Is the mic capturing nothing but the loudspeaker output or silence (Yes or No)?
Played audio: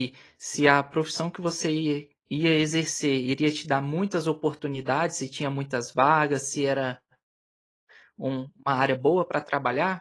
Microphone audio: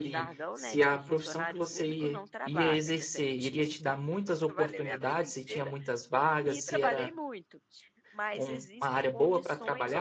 No